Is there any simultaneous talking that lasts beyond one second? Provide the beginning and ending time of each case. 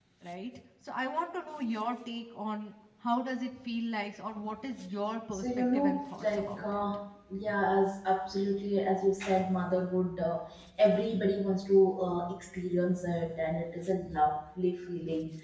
5.3-6.8

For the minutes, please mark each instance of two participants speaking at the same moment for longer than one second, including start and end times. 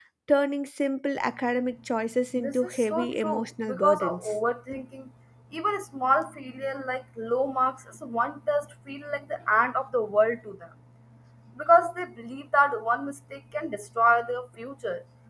2.4-4.3

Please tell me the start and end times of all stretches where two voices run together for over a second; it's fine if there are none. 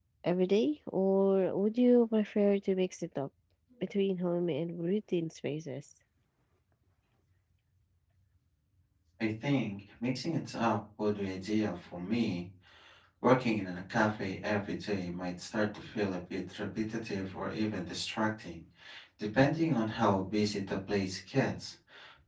none

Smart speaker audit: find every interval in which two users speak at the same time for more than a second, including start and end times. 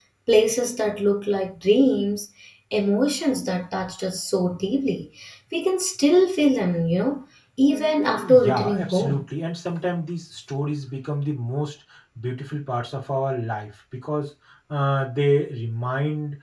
7.7-9.2

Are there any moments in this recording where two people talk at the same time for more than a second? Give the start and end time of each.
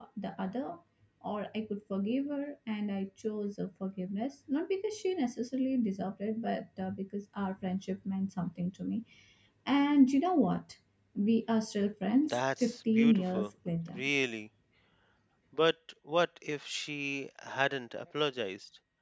12.2-13.5

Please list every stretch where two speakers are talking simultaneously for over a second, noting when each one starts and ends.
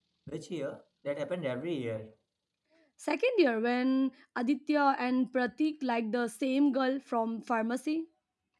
none

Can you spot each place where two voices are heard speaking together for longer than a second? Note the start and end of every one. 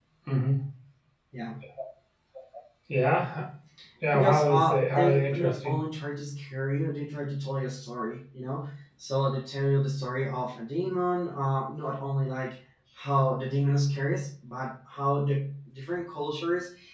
4.1-5.8

